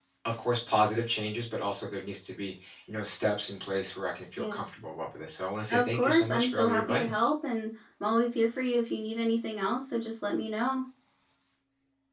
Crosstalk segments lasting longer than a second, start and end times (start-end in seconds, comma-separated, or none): 5.7-7.3